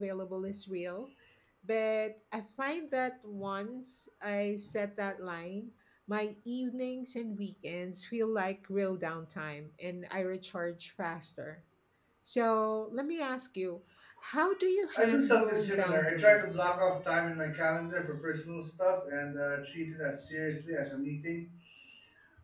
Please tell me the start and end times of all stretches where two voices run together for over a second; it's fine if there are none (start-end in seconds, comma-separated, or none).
14.9-16.7